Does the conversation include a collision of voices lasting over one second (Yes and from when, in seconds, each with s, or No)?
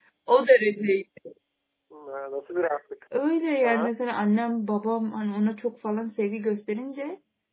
No